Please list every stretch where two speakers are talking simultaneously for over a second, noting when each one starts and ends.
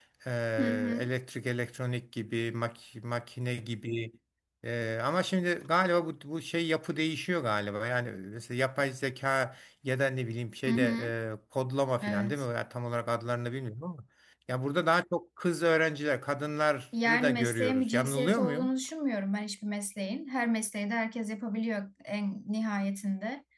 17.1-18.7

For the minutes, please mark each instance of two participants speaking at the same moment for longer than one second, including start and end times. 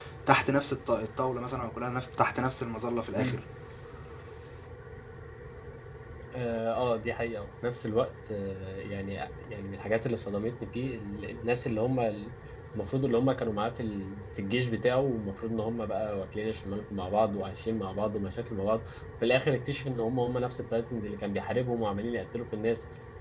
none

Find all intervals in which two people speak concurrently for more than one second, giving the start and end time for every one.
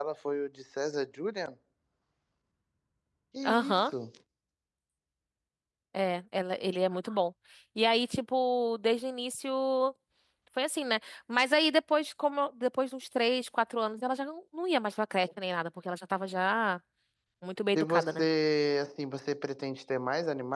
none

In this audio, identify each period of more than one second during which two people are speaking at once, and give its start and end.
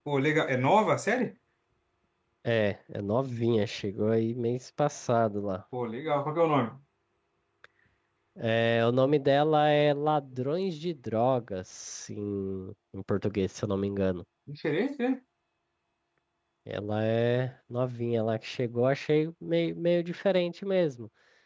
none

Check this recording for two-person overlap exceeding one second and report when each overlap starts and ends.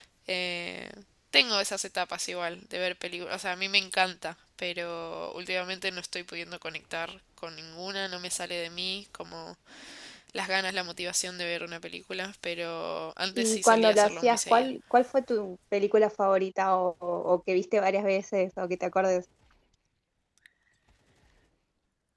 13.4-14.7

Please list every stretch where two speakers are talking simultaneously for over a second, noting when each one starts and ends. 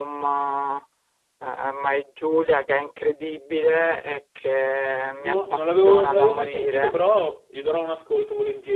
5.2-7.0

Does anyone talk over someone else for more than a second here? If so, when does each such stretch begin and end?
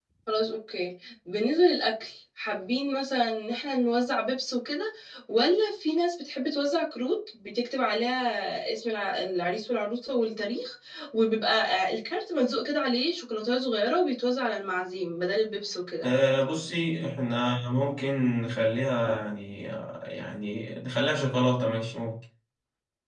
none

